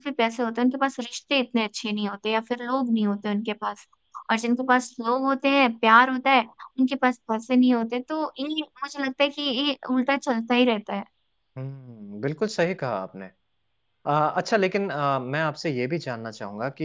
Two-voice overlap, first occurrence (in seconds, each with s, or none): none